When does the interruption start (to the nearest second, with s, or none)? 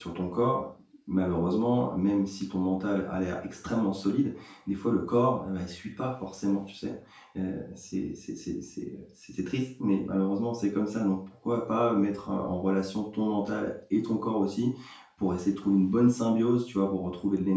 none